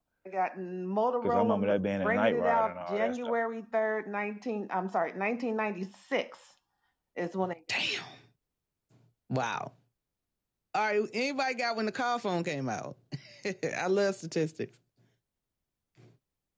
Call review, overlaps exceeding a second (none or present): present